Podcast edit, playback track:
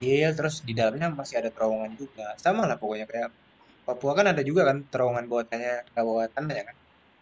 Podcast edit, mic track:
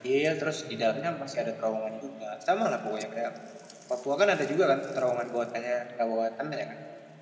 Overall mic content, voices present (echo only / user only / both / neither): echo only